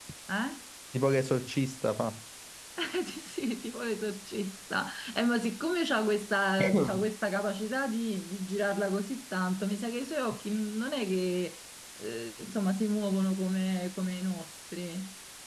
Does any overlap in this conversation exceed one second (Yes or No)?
No